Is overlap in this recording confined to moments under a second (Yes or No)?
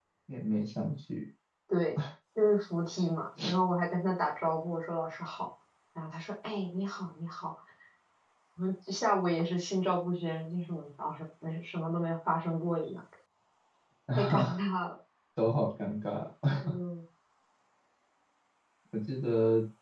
Yes